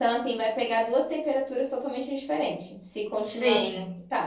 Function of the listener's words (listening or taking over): listening